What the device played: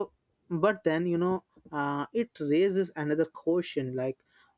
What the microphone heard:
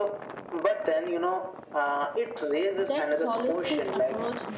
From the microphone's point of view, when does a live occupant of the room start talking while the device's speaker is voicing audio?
2.8 s

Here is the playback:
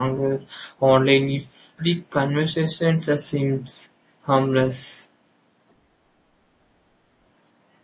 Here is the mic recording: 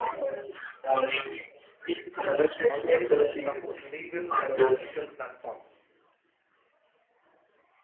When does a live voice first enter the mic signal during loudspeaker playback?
2.7 s

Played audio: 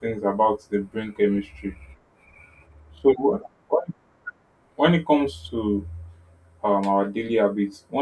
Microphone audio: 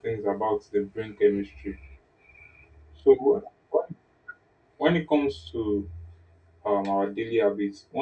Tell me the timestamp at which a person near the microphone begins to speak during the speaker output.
none

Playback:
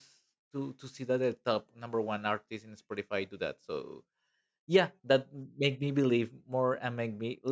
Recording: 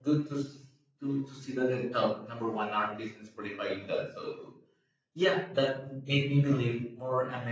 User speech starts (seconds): none

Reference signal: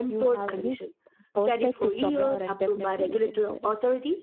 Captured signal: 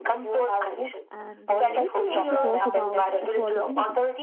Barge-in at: 1.1 s

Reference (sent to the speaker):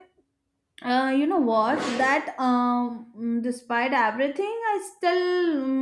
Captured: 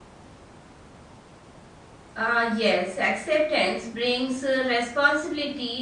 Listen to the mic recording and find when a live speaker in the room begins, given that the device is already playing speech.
2.1 s

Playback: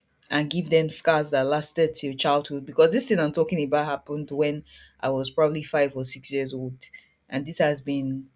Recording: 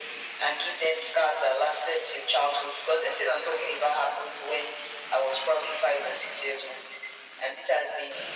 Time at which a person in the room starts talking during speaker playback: none

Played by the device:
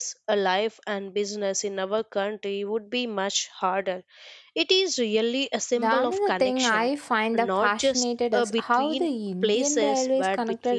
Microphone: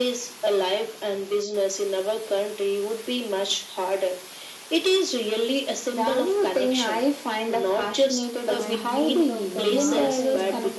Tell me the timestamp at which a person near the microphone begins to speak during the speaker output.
8.6 s

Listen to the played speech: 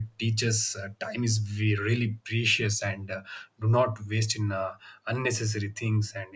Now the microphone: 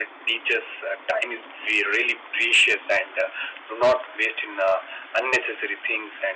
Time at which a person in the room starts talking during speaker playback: none

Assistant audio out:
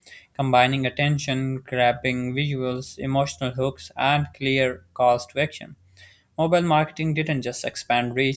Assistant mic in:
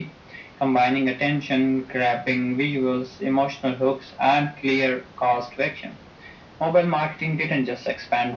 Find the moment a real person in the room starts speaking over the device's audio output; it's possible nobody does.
none

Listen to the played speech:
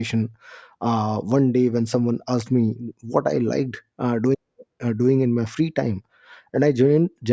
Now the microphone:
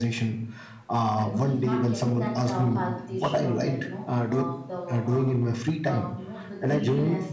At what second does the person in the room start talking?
1.2 s

